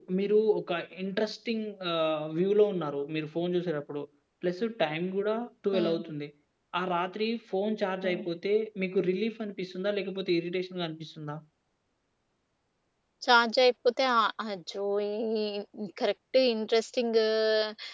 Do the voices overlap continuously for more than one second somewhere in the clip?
No

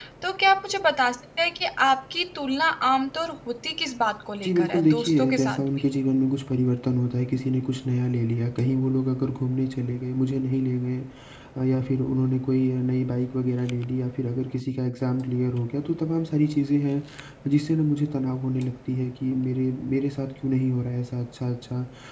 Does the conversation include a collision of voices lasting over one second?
Yes, from 4.4 s

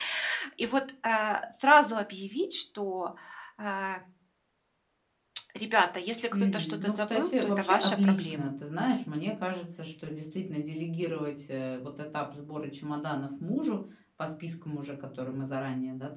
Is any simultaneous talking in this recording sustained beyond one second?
Yes, from 6.3 s

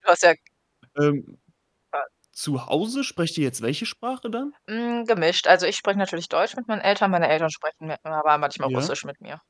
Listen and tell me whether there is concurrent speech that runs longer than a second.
No

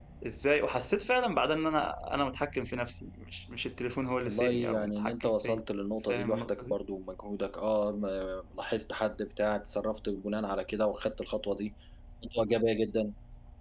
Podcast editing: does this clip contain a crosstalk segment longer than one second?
Yes, from 4.3 s

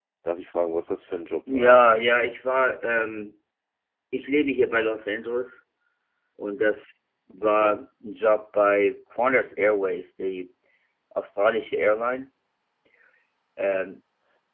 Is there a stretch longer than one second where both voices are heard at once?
No

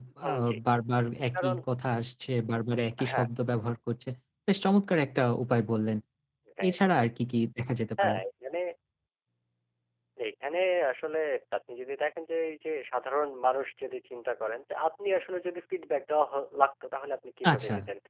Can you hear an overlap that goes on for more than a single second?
No

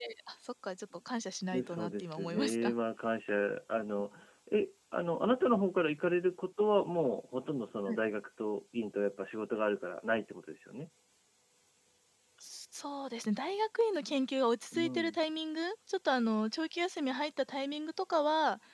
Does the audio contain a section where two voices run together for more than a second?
Yes, from 1.5 s

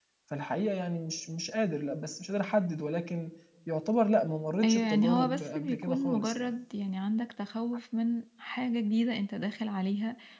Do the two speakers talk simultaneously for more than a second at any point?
Yes, from 4.6 s

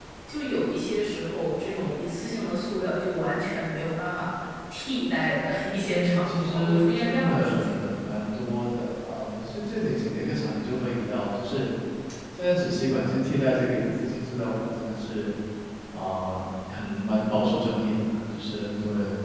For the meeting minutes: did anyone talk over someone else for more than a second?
Yes, from 5.7 s

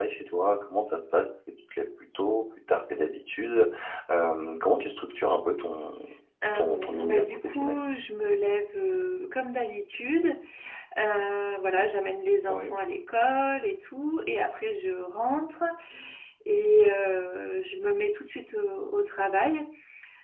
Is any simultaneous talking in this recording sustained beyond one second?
Yes, from 6.5 s

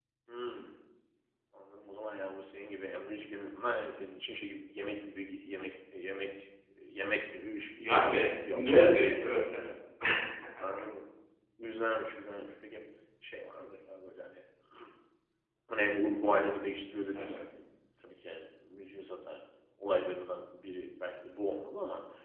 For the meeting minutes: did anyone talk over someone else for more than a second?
Yes, from 7.9 s

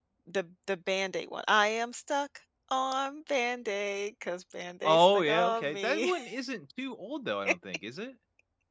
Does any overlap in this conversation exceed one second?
Yes, from 4.8 s

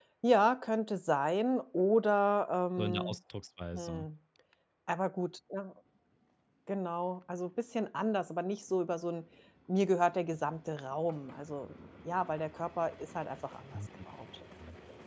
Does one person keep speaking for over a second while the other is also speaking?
No

